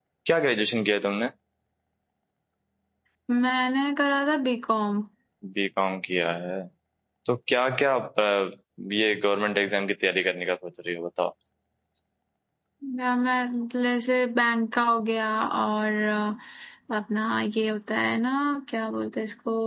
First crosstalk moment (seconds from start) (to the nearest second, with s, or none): none